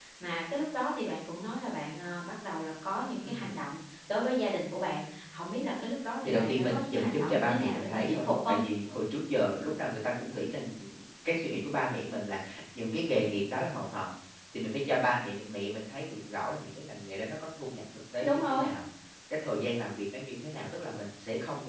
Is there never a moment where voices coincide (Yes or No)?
No